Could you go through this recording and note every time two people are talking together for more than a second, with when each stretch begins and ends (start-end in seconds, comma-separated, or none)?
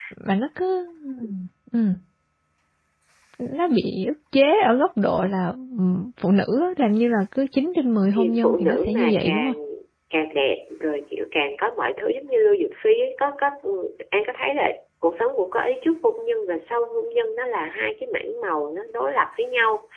8.1-9.5